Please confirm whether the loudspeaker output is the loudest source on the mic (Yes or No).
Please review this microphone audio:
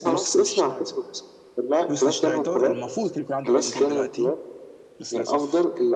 Yes